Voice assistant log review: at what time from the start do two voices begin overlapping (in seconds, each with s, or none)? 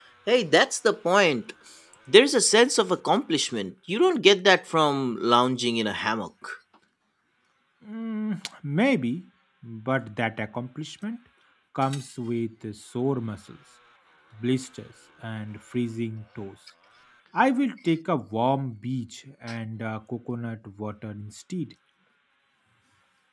none